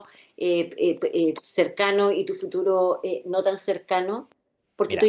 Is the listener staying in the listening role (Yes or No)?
Yes